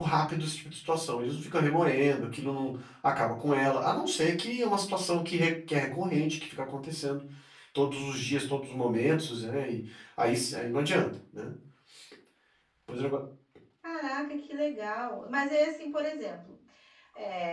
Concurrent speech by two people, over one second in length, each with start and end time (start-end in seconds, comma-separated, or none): none